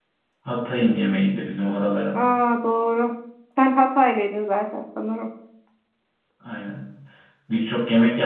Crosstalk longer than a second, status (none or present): none